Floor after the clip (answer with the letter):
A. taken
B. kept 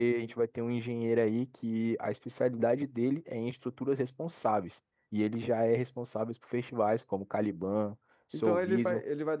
A